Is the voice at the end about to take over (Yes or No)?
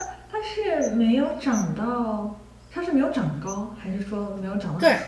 Yes